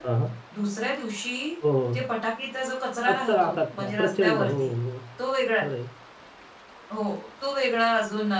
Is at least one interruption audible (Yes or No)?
Yes